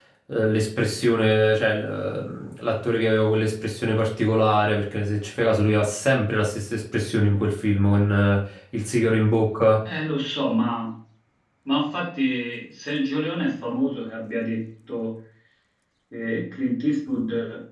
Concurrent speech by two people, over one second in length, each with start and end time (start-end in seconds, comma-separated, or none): none